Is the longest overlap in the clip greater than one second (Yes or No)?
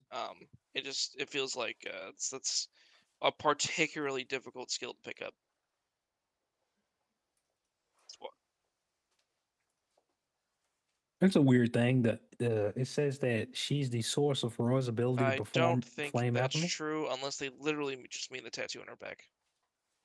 Yes